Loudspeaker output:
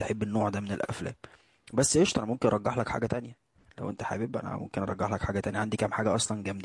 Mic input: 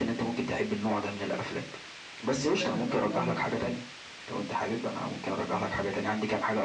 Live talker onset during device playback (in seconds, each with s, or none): 2.4 s